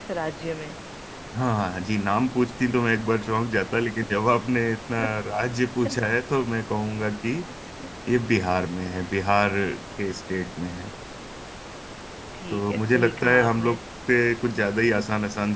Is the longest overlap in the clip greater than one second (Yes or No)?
Yes